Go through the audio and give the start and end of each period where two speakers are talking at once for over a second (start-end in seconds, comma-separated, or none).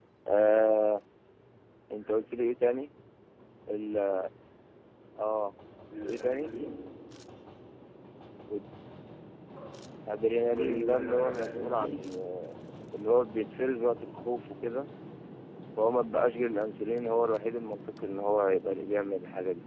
10.5-12.0